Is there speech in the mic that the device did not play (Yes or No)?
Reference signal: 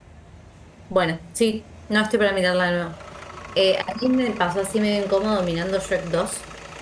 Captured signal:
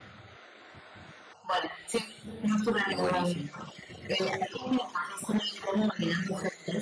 Yes